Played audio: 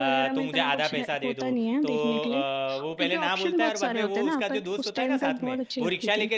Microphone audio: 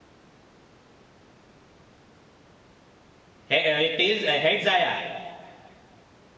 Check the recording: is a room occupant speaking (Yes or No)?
Yes